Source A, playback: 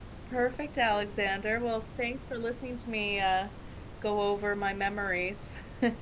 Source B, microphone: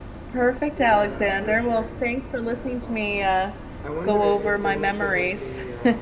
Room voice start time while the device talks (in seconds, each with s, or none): 0.7 s